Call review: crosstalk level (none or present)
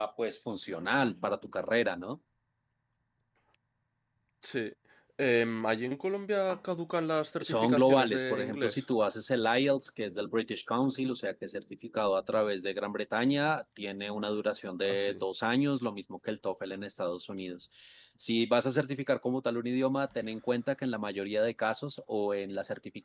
present